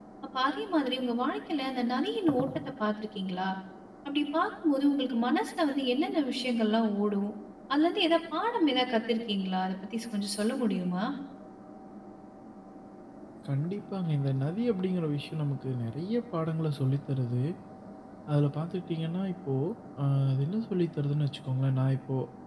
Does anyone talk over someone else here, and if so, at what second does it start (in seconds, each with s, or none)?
none